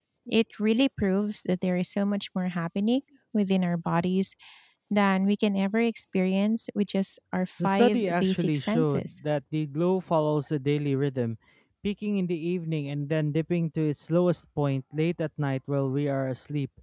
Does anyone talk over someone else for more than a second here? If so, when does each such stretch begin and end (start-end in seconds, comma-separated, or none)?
7.6-9.1